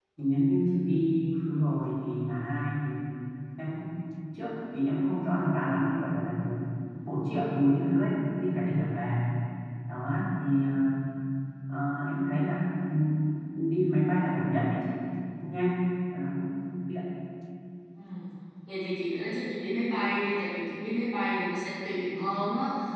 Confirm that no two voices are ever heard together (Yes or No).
Yes